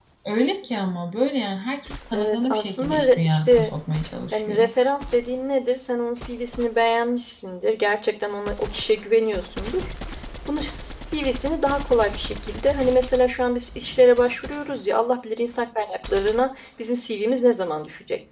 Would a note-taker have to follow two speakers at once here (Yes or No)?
Yes